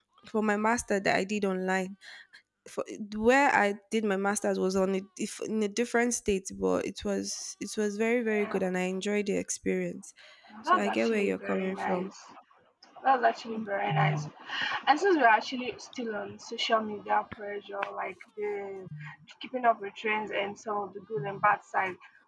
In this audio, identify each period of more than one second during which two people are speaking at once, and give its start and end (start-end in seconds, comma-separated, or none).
10.7-12.1